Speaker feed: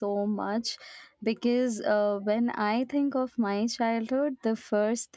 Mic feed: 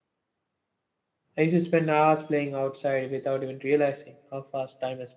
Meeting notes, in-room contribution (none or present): present